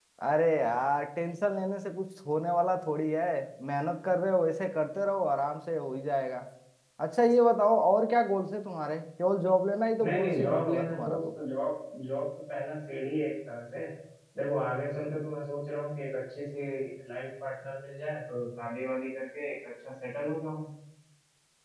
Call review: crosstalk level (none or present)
present